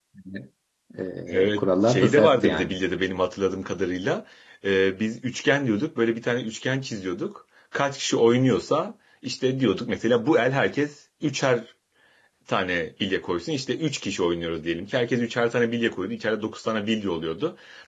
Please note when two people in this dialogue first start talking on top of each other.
1 s

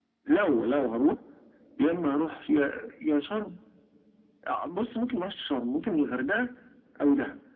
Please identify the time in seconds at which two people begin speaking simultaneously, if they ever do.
none

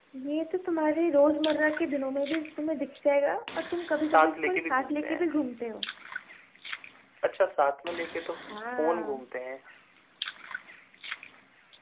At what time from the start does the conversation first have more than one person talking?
4 s

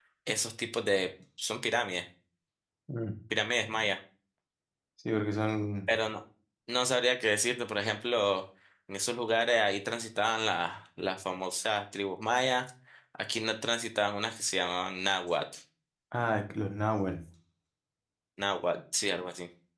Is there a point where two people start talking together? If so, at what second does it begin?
none

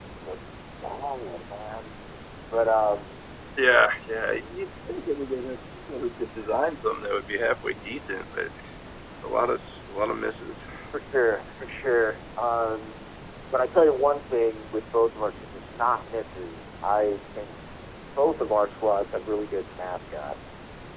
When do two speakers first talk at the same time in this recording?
none

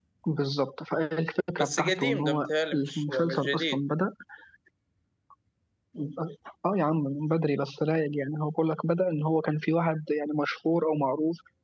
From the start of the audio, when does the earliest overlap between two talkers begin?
2 s

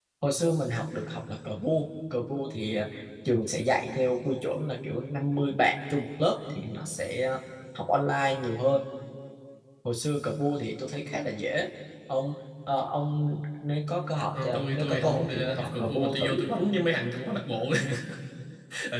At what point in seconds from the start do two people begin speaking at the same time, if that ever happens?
14 s

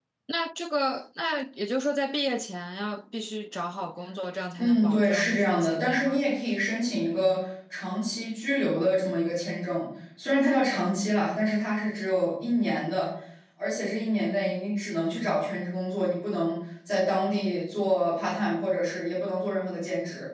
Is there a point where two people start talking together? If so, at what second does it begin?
5 s

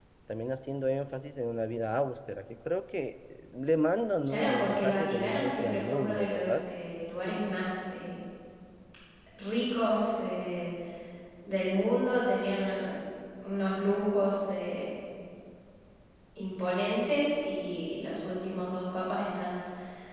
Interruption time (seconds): 4 s

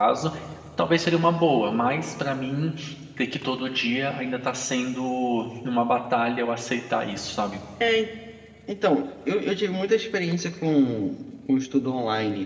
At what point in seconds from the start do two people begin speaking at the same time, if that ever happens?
none

